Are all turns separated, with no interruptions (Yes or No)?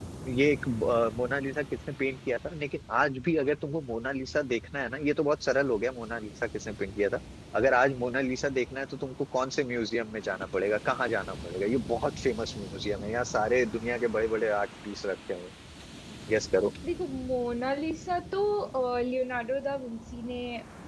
Yes